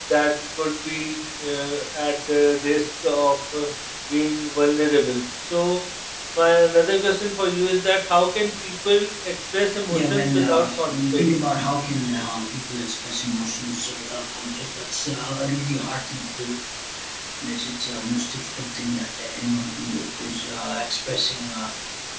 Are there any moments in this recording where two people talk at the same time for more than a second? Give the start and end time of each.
9.9-11.2

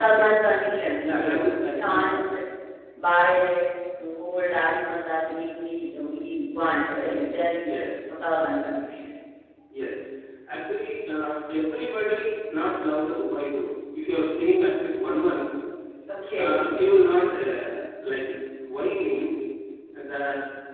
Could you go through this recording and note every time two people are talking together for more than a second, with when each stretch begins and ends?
1.0-2.3

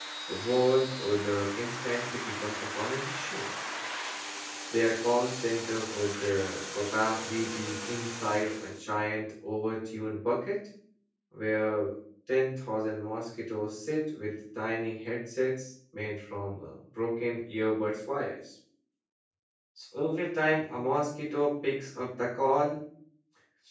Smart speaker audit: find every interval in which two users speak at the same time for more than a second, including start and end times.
none

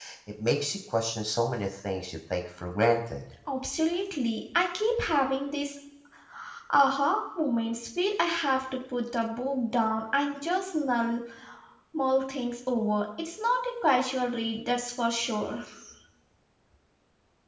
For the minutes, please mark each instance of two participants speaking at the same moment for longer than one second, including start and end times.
none

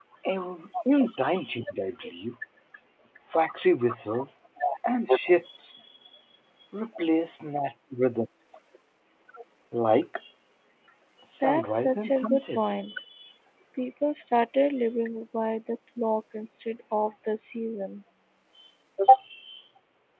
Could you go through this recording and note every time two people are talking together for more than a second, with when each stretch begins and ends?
11.4-12.6

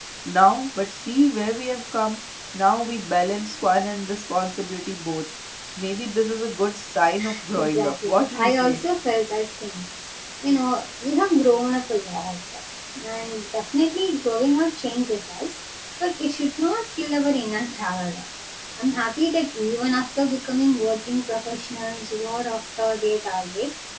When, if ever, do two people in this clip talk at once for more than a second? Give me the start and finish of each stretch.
7.5-8.8

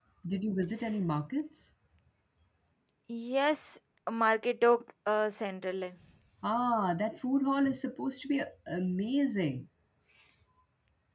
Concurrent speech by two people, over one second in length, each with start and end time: none

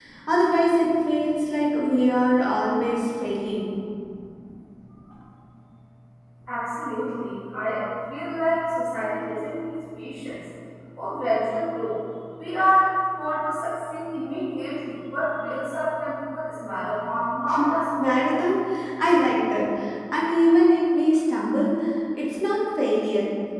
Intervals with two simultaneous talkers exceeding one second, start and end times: none

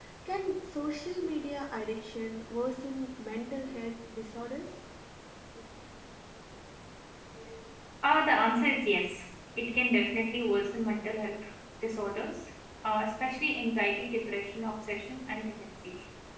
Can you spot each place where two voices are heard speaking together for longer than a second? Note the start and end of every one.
none

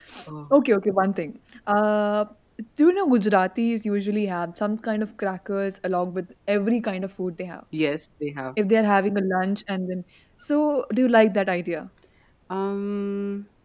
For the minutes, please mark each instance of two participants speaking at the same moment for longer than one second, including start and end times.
none

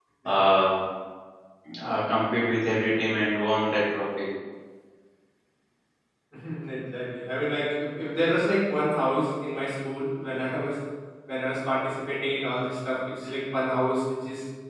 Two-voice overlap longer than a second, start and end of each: none

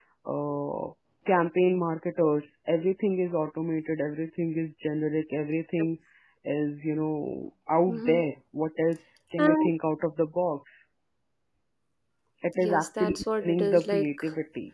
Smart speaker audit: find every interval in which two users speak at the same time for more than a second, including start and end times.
12.6-14.2

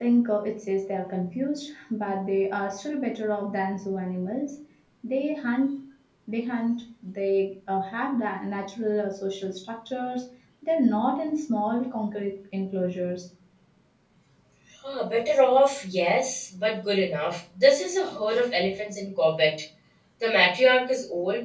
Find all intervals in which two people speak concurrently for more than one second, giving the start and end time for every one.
none

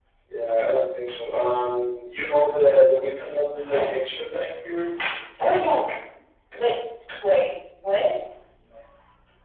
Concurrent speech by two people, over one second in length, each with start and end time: none

